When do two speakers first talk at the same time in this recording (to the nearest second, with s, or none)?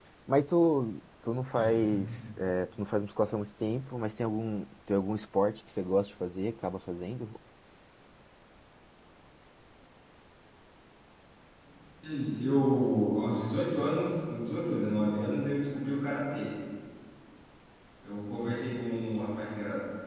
none